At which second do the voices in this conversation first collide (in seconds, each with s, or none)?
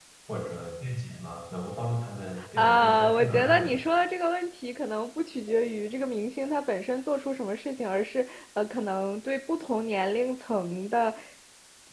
2.6 s